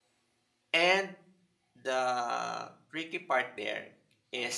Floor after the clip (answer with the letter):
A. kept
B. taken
A